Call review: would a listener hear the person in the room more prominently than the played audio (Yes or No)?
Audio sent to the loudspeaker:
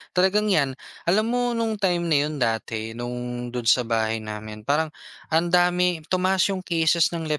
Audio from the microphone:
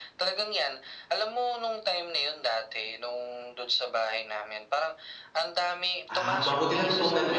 Yes